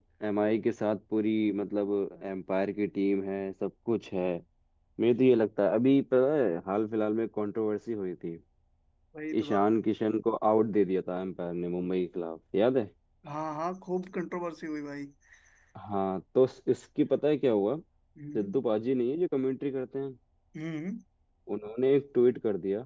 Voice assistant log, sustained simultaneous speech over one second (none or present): none